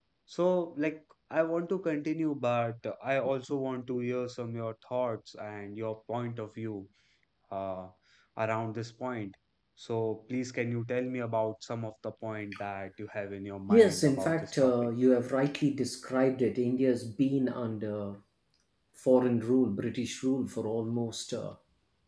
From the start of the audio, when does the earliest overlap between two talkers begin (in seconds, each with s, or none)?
13.7 s